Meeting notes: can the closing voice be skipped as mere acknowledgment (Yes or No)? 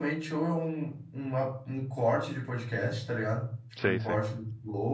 Yes